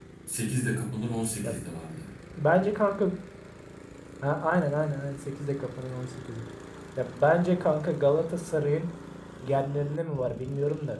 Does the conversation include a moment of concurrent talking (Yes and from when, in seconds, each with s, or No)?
No